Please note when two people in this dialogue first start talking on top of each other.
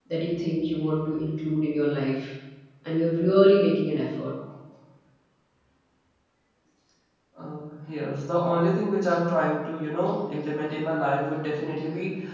none

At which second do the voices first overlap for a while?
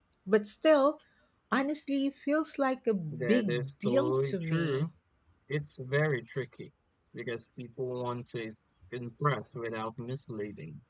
3.1 s

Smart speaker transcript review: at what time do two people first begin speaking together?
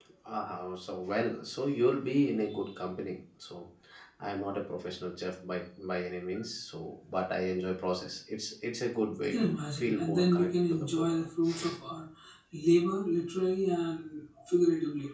9.2 s

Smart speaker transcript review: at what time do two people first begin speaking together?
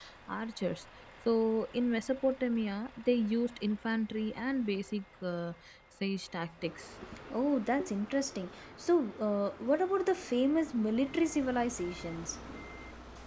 none

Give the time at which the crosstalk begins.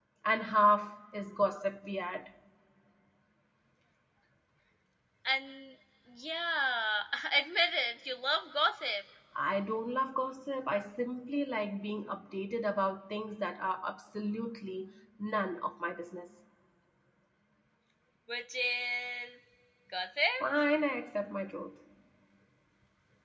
none

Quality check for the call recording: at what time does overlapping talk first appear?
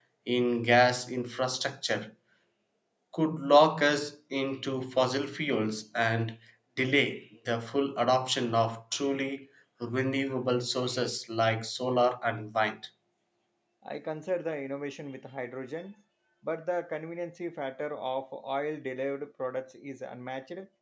none

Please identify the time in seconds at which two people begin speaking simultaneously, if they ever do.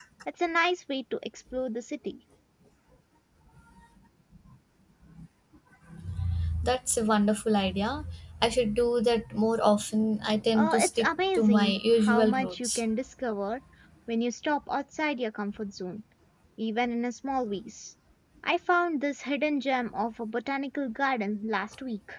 10.6 s

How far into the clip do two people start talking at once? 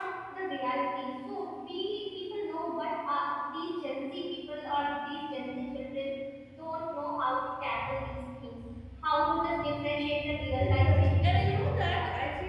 10.6 s

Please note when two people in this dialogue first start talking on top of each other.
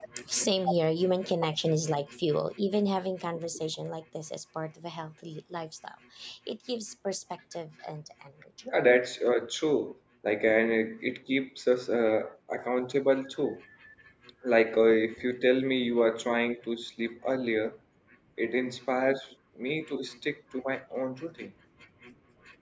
none

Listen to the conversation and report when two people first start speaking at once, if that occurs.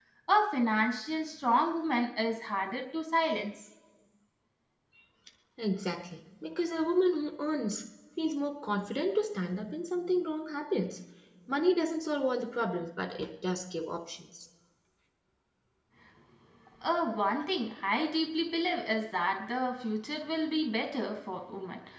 none

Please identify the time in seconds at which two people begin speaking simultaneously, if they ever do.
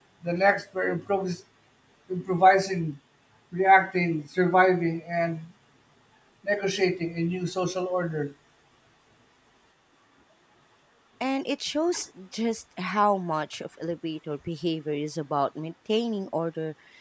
none

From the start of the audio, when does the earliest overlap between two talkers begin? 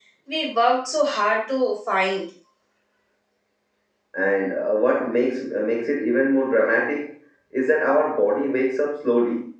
none

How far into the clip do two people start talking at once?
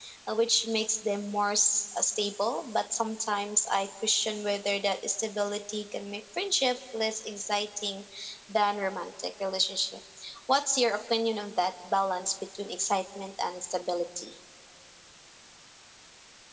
none

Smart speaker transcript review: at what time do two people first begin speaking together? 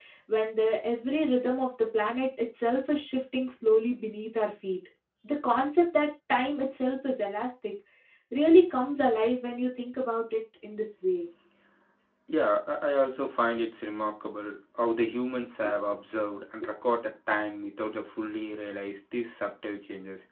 none

